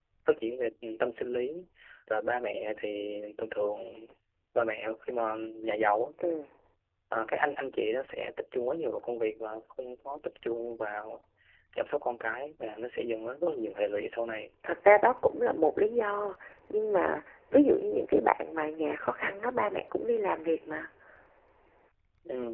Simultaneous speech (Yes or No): No